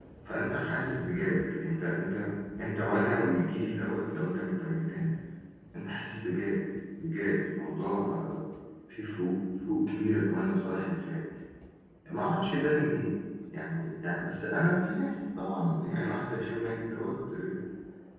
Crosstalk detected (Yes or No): No